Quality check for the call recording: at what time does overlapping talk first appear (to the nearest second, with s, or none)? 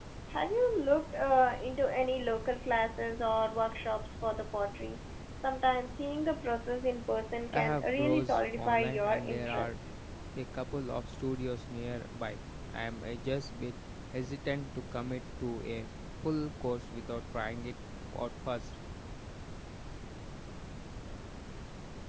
7 s